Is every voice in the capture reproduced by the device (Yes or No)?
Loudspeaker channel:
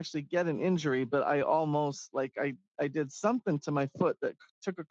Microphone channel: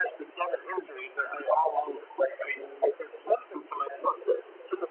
Yes